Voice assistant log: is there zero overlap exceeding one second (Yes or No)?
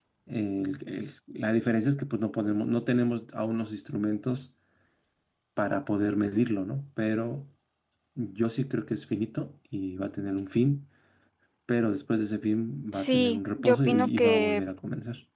No